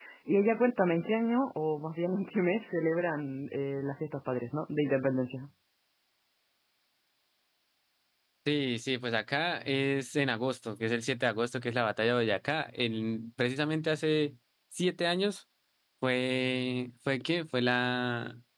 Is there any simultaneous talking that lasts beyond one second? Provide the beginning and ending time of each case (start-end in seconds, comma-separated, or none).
none